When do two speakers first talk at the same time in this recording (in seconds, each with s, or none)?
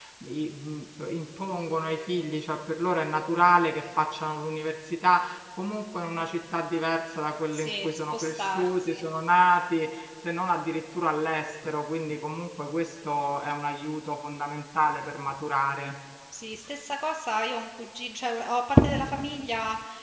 7.5 s